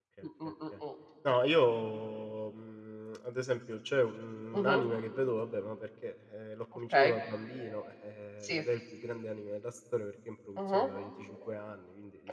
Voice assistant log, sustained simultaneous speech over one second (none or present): none